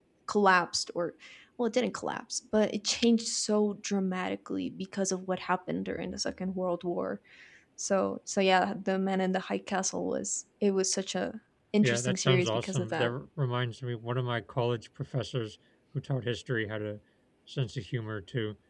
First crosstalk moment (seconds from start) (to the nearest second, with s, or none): 12 s